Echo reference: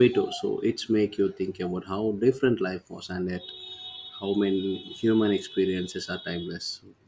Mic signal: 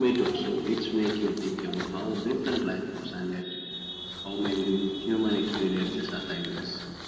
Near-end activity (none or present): none